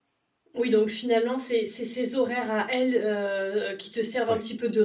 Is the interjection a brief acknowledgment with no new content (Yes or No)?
Yes